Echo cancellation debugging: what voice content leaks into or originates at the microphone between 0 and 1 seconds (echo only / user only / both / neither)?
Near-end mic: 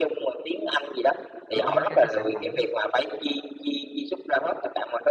echo only